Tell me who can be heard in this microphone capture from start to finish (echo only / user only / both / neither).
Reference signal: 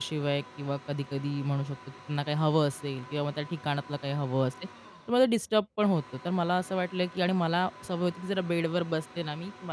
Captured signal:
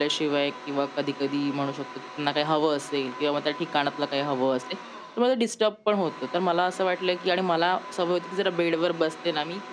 echo only